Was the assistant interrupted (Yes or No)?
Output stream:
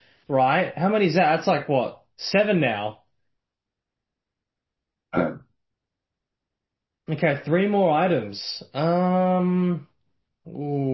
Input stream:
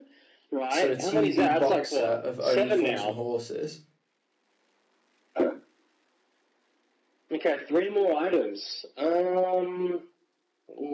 Yes